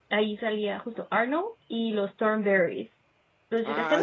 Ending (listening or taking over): taking over